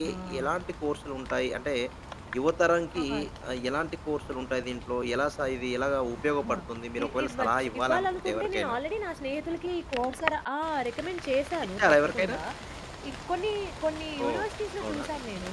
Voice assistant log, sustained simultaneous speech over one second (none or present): present